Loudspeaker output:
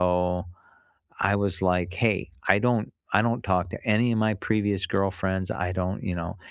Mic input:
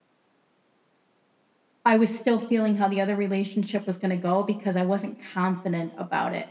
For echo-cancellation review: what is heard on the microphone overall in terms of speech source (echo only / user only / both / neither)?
user only